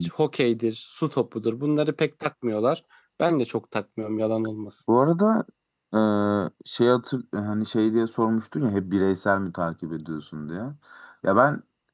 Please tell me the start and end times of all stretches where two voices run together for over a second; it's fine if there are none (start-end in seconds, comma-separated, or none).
none